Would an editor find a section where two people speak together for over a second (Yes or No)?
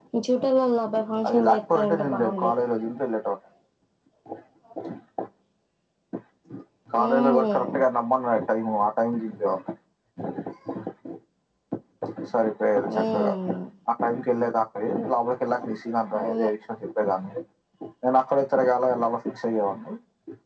Yes